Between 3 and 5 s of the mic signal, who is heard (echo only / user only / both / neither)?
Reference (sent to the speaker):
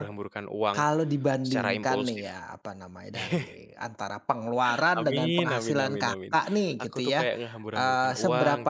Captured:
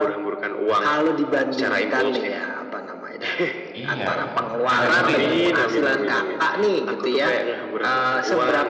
both